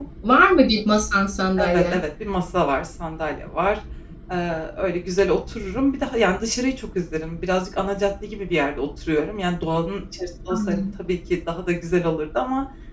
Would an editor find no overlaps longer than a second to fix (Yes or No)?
Yes